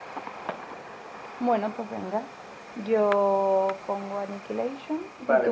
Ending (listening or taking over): taking over